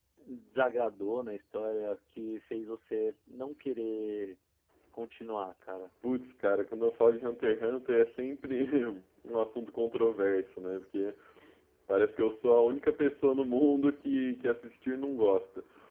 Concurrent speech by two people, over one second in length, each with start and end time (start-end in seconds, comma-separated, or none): none